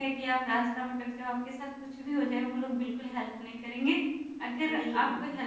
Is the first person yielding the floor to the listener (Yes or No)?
No